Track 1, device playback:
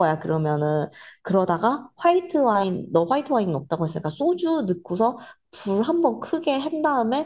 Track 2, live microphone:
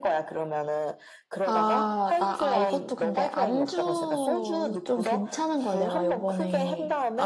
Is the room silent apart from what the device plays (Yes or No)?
No